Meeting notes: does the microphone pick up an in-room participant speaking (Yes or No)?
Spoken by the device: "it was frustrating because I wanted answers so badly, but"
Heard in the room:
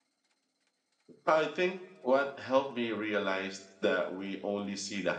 Yes